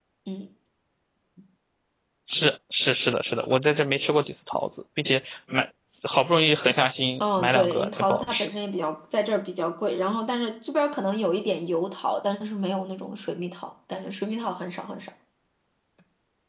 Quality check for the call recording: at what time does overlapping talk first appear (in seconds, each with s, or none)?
7.2 s